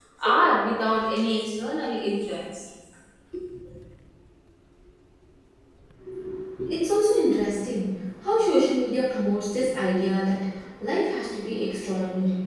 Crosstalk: none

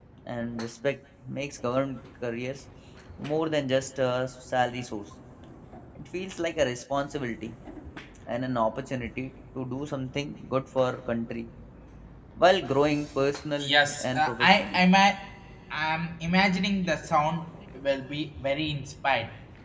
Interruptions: present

